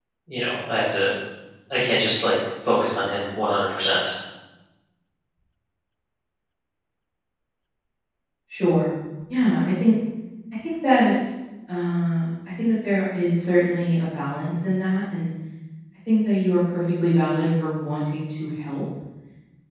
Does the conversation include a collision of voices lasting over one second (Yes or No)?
No